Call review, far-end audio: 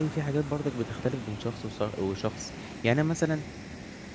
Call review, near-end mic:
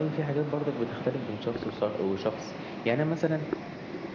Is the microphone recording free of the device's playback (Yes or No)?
No